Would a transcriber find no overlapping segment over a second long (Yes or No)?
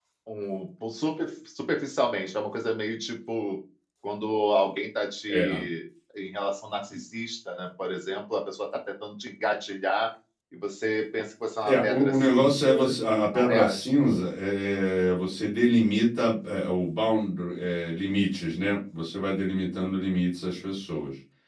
No